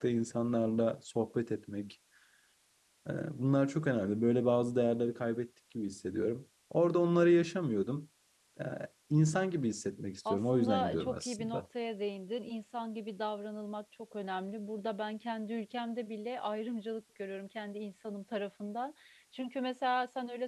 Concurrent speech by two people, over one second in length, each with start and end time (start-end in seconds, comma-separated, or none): 10.3-11.6